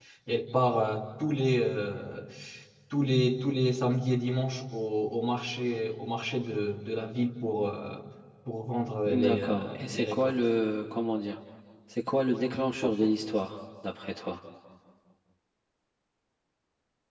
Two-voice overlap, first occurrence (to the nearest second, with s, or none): 9 s